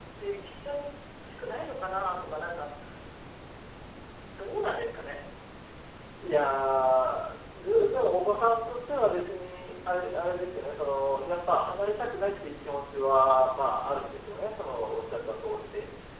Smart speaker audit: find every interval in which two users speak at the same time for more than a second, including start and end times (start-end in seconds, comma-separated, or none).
none